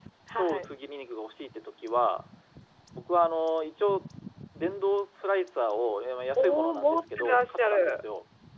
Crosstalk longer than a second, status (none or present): present